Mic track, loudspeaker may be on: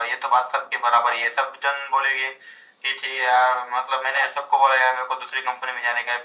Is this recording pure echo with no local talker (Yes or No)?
Yes